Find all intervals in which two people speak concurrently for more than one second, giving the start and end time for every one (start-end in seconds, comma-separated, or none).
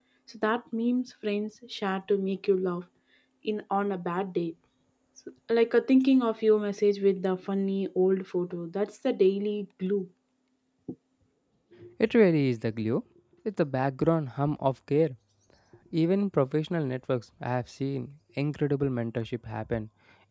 none